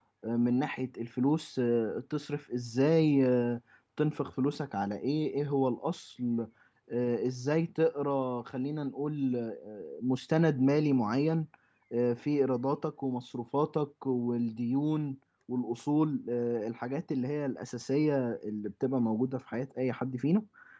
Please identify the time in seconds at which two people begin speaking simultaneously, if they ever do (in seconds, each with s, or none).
none